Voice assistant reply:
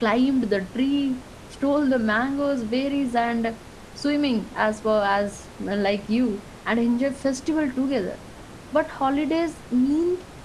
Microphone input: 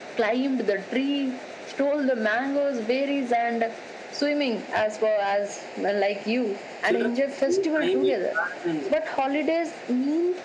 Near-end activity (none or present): present